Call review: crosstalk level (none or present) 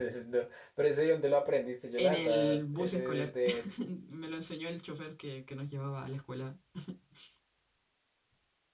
present